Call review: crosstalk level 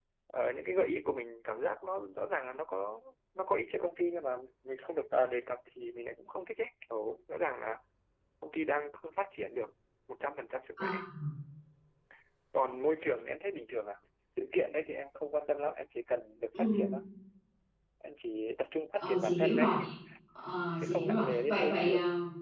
present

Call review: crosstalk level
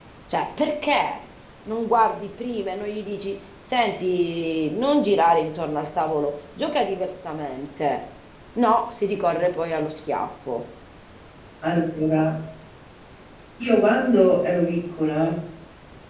none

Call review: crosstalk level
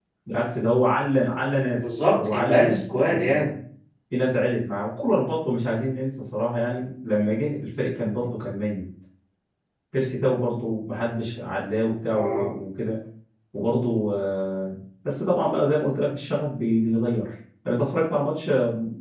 present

